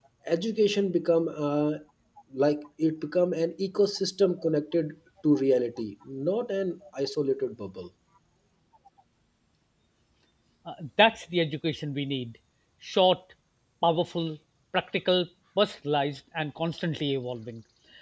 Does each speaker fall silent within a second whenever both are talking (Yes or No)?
Yes